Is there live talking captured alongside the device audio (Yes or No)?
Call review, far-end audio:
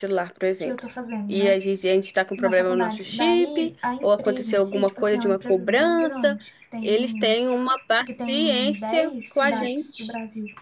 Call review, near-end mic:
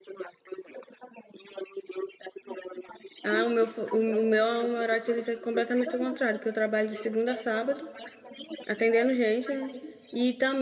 Yes